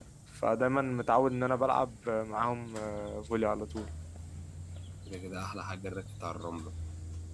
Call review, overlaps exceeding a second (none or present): none